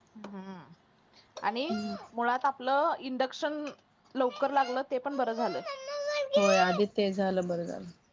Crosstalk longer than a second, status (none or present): none